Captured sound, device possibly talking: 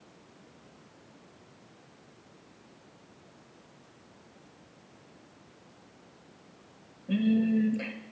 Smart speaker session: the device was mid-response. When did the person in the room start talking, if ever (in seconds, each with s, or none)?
7.1 s